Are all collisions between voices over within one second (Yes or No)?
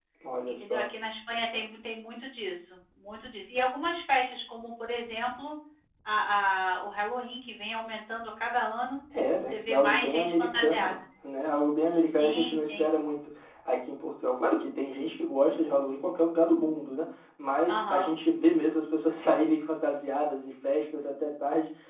No